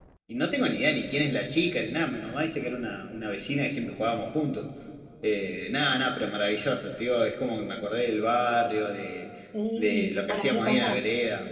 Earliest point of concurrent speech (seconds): 9.8 s

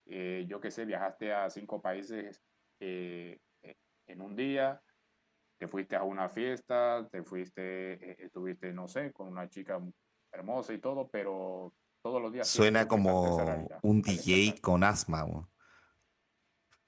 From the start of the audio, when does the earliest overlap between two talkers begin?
12.4 s

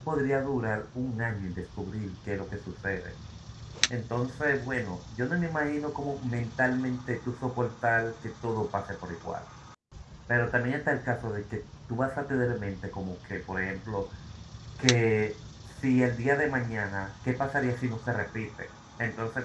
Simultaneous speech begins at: none

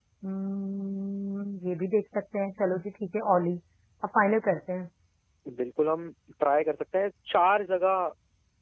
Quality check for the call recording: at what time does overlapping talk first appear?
none

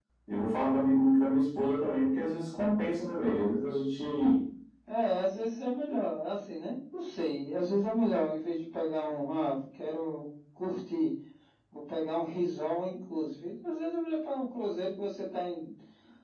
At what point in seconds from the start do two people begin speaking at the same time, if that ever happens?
none

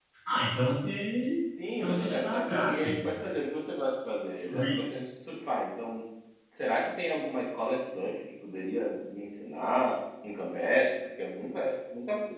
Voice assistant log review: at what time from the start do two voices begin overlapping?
1.8 s

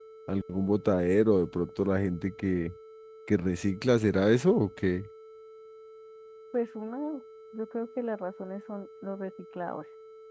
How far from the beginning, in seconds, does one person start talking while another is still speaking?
none

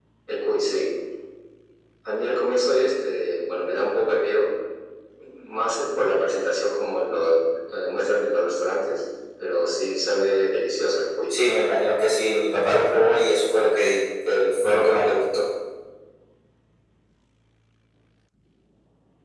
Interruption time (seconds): none

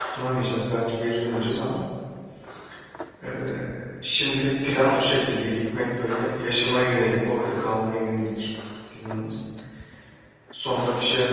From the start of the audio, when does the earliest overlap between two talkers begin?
none

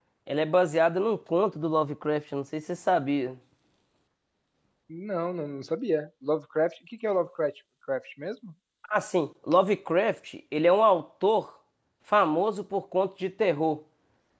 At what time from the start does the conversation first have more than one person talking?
none

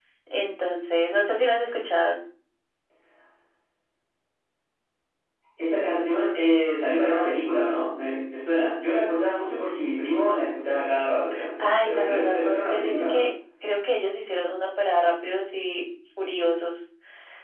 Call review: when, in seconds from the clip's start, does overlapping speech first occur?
11.6 s

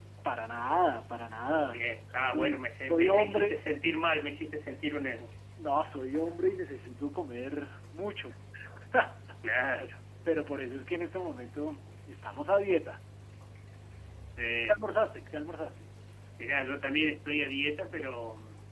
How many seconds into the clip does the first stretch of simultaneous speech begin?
1.7 s

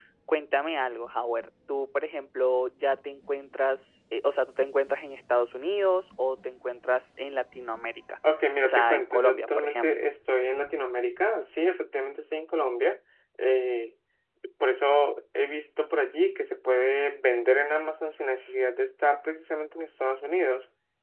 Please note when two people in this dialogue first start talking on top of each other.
8.6 s

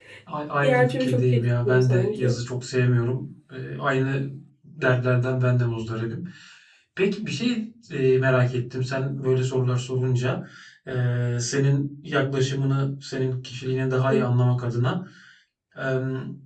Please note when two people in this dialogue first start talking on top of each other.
0.6 s

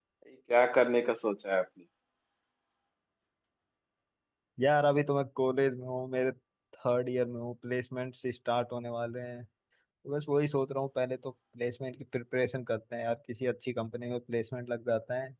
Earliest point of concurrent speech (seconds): none

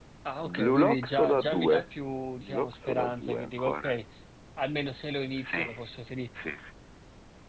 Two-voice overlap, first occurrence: 0.5 s

